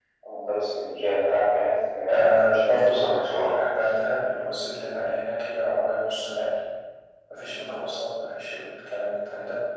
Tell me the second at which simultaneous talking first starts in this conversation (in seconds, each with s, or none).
2.1 s